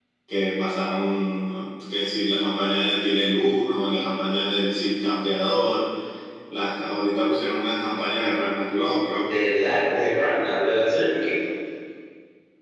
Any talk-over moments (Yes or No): No